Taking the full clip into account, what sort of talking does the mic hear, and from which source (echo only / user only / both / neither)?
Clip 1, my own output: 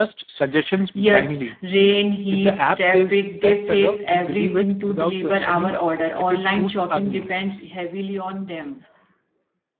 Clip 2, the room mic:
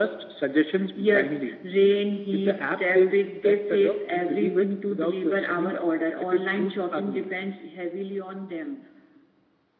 echo only